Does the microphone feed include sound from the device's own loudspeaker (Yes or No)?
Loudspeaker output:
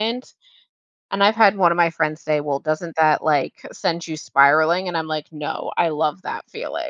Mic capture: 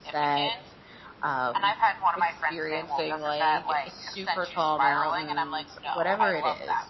Yes